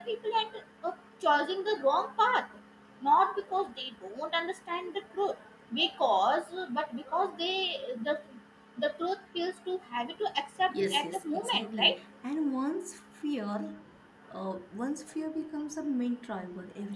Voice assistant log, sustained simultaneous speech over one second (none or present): present